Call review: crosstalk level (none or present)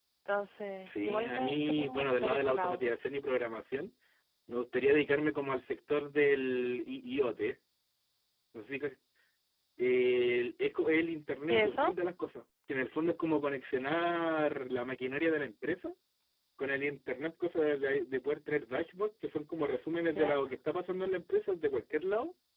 present